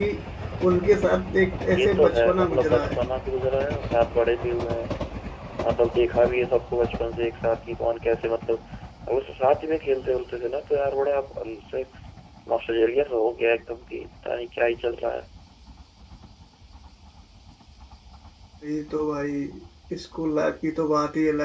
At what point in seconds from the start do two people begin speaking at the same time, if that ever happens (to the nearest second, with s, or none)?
2 s